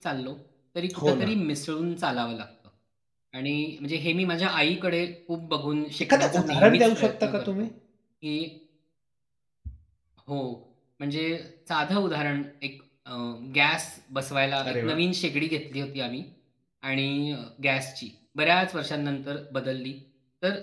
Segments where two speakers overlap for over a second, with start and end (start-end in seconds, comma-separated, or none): 6.0-7.7